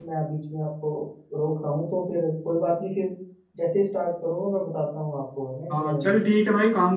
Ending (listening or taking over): taking over